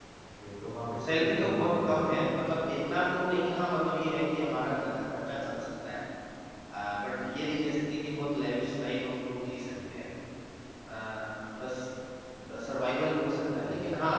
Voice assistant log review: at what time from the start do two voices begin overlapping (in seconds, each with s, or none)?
1.0 s